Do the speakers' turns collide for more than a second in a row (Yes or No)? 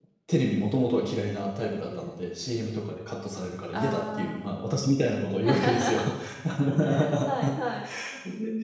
Yes